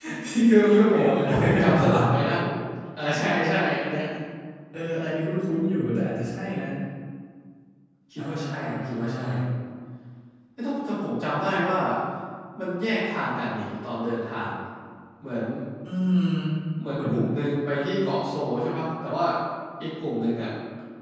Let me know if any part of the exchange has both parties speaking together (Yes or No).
Yes